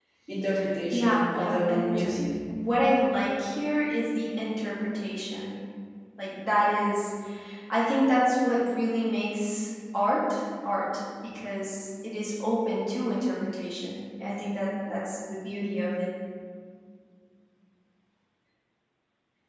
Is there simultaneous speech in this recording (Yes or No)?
Yes